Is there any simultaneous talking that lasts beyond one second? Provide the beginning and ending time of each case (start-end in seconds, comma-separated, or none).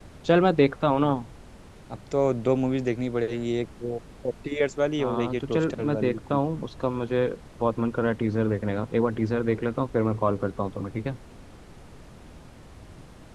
5.0-6.4